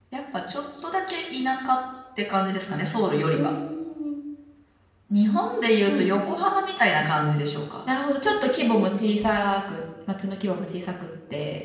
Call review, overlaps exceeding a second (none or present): none